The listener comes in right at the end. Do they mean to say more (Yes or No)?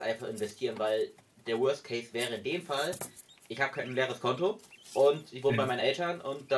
No